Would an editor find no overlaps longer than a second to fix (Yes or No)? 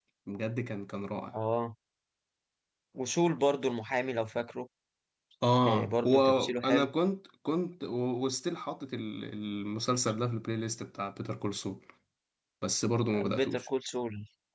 No